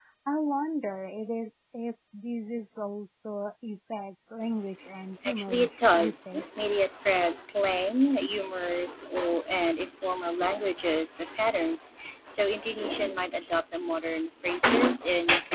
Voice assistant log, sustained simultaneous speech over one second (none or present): present